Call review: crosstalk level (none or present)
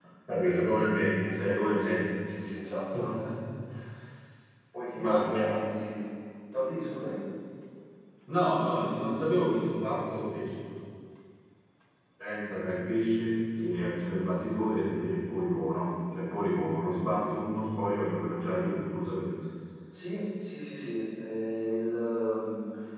present